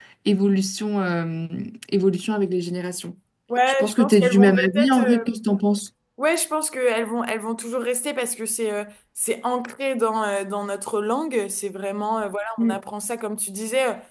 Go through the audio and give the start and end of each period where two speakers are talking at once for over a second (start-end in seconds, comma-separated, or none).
3.8-5.2